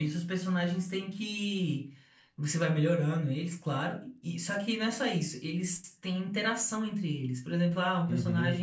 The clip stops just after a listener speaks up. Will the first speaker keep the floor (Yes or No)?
Yes